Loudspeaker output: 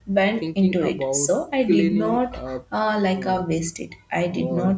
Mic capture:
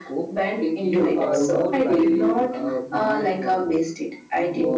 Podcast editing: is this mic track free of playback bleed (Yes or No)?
No